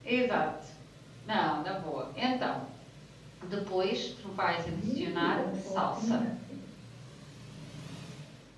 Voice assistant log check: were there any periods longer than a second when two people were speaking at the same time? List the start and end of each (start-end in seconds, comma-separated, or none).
4.7-6.2